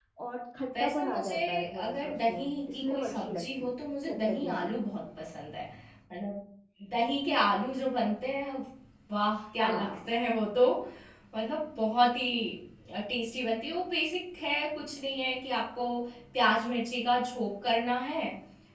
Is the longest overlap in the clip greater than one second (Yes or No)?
Yes